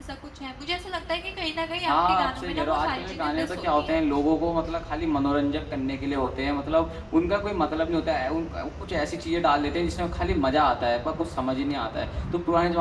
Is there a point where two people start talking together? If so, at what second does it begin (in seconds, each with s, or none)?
1.9 s